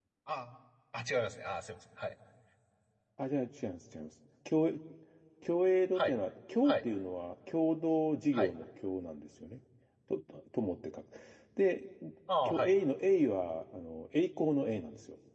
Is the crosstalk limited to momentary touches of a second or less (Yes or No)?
Yes